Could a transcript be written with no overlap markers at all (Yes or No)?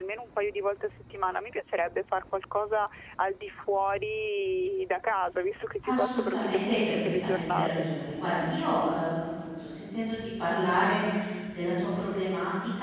No